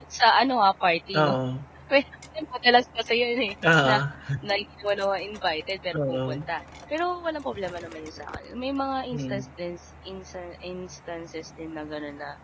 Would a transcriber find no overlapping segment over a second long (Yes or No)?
Yes